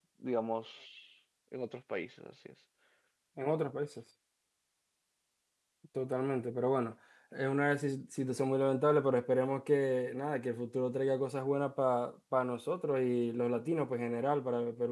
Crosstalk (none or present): none